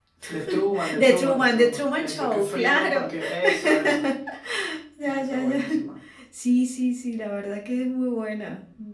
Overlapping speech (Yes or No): Yes